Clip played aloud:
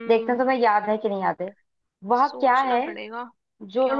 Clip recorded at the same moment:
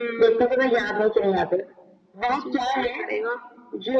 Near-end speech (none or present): none